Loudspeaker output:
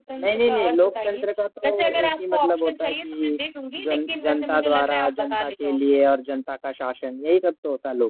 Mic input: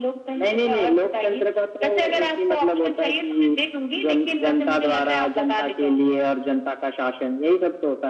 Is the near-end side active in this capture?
No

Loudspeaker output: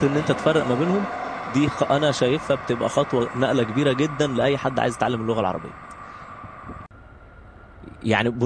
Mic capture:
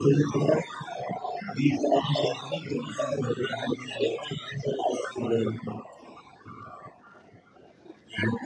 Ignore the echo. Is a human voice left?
Yes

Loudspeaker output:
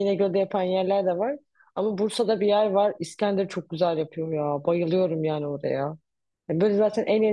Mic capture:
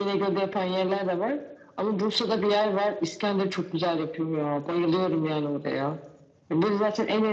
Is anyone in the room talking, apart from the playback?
No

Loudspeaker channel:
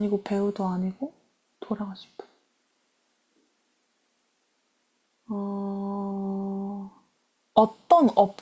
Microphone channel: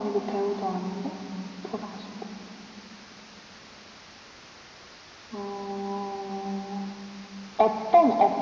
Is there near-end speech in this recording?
No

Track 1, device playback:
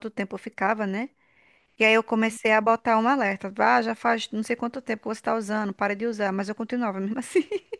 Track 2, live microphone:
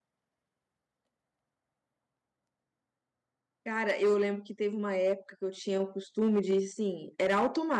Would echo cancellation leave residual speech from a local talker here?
Yes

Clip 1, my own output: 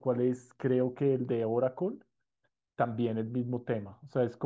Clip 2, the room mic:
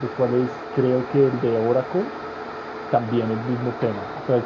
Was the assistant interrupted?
No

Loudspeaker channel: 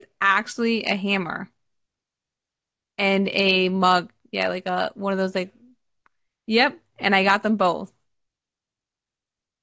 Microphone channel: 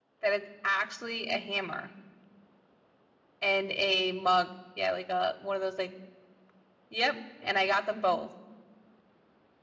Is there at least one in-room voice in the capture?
No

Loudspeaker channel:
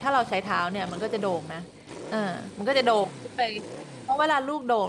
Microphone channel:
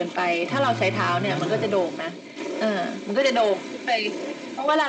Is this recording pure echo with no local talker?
No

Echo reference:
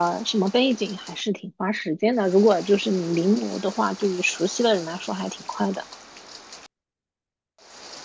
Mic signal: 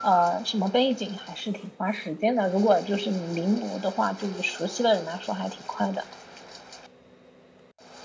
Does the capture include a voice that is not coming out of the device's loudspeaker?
No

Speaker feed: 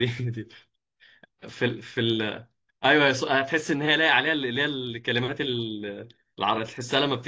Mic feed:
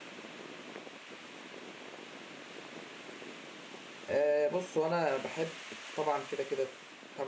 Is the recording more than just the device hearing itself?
Yes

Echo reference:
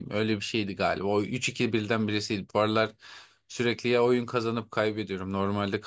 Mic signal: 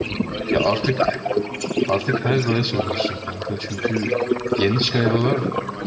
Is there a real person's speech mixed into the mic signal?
Yes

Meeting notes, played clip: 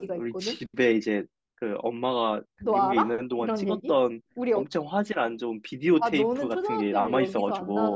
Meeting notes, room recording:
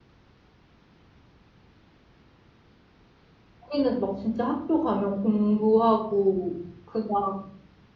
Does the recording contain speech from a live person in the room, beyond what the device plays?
Yes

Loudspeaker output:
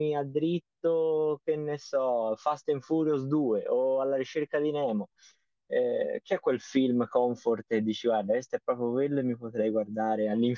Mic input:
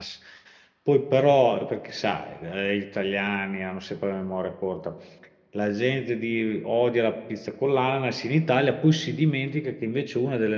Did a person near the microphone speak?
Yes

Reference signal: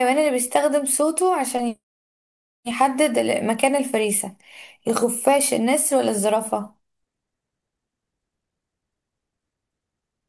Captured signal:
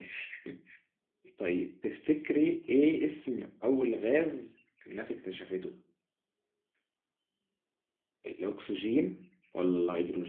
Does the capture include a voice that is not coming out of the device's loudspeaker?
Yes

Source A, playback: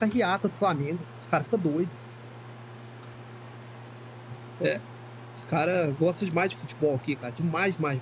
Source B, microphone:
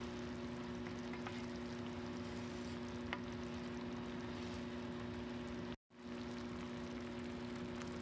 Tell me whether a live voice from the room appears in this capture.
No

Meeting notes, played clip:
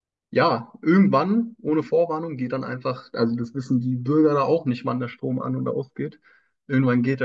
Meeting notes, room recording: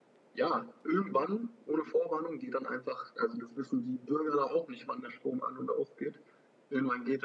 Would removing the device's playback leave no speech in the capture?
Yes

